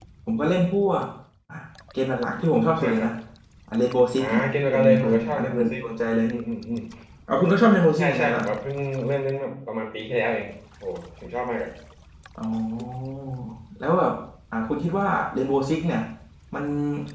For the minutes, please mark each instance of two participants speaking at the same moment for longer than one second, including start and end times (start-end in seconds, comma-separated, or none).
4.2-5.7